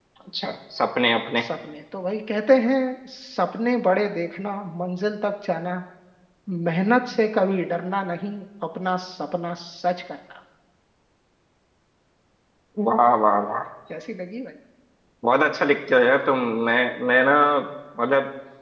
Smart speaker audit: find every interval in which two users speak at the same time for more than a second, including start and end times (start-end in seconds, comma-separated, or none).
none